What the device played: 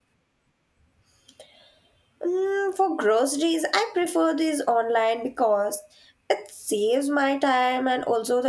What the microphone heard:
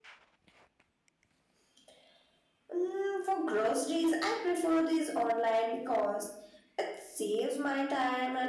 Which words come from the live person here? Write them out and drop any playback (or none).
none